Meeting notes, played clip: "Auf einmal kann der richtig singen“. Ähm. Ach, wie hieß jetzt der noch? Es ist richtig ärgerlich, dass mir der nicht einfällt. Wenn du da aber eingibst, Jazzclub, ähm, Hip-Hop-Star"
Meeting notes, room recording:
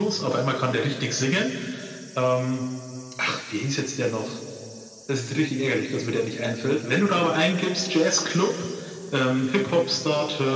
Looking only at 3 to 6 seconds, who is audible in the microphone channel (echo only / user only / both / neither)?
echo only